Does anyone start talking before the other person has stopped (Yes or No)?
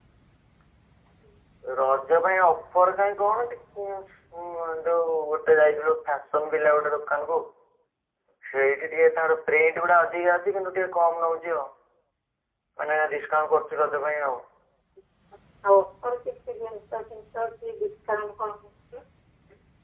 No